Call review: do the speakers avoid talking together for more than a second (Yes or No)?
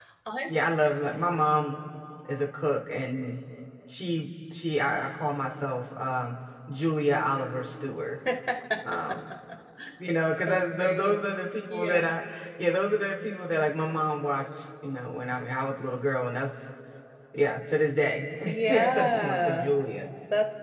No